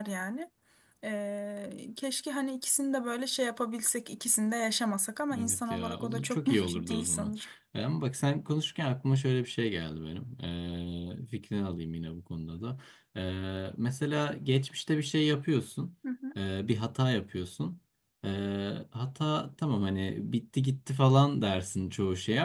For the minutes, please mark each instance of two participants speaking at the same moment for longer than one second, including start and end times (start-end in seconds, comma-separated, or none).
5.4-7.3